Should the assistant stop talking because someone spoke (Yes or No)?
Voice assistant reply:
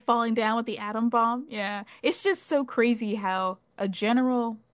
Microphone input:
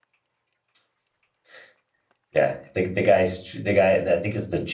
Yes